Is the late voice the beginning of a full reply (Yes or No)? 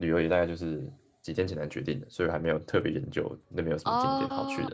Yes